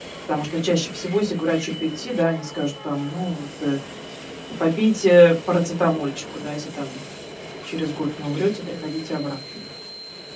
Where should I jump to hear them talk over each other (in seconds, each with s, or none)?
none